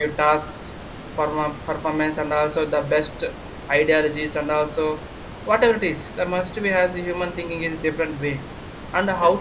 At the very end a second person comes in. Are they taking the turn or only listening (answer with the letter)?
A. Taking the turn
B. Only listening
B